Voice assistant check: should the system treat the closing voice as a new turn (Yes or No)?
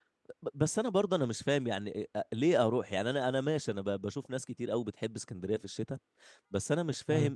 No